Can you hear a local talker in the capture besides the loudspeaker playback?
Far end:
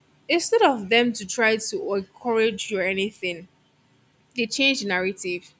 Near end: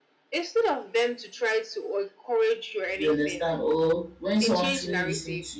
Yes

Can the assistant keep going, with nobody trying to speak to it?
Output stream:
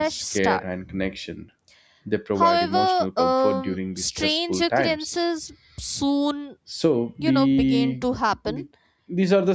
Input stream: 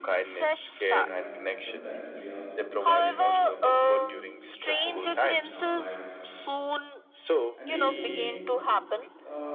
No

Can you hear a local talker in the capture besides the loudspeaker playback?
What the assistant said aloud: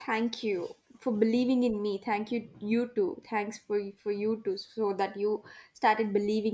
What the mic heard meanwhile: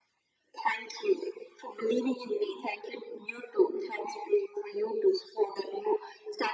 No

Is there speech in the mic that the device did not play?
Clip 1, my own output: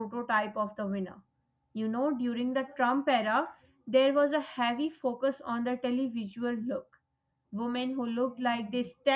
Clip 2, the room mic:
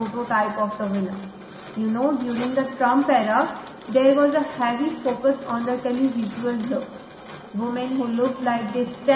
No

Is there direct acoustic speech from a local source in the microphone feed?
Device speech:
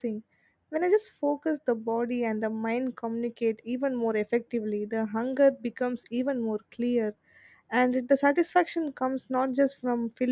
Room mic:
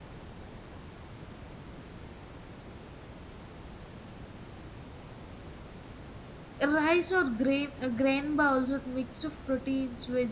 Yes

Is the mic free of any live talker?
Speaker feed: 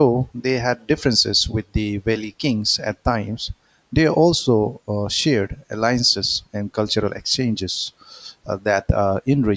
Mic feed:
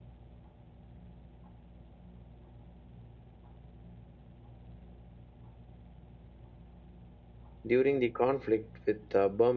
No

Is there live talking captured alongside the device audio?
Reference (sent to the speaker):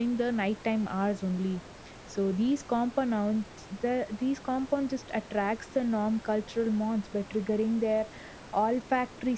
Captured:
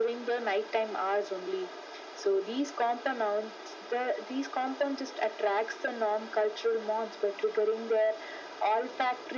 No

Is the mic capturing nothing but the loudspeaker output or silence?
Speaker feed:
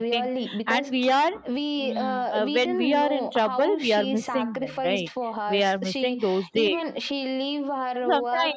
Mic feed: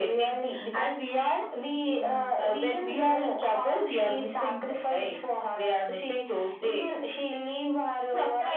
Yes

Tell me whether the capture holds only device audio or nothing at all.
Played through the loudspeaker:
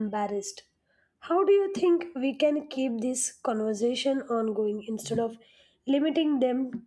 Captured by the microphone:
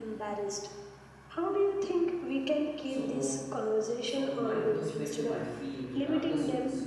No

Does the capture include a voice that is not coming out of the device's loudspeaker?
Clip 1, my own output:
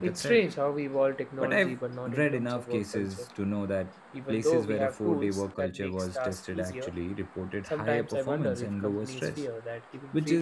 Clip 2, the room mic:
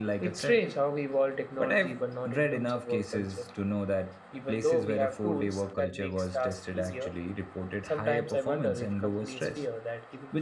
No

